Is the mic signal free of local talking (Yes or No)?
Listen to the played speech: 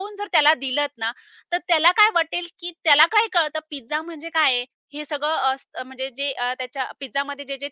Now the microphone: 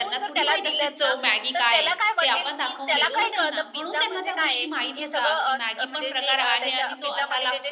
No